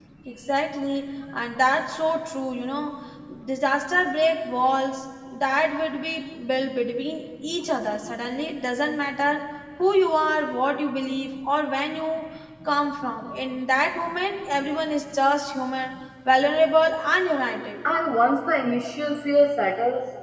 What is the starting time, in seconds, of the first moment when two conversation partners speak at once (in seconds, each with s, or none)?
none